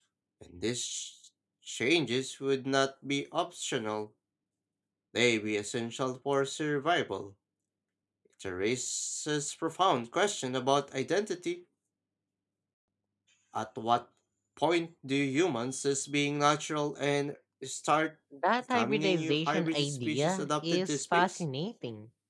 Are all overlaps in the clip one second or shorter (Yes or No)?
No